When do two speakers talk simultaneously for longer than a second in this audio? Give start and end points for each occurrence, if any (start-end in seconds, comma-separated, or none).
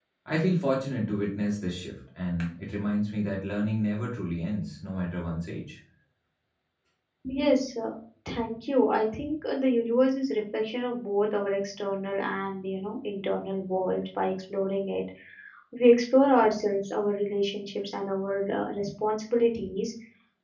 none